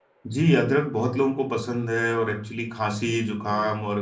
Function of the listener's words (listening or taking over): listening